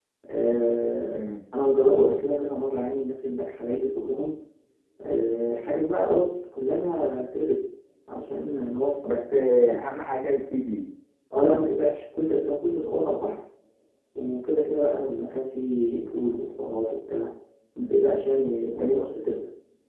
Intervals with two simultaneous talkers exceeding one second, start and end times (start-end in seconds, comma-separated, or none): none